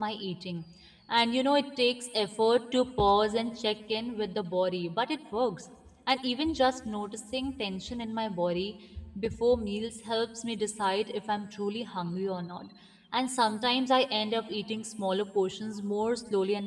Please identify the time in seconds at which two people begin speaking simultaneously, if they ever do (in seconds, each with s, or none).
none